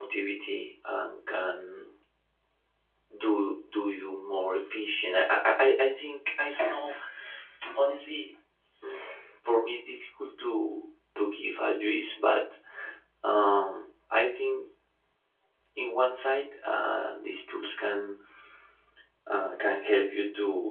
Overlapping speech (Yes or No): No